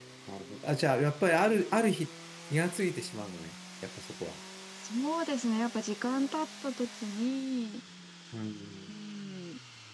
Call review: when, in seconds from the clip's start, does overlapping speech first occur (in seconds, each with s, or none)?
none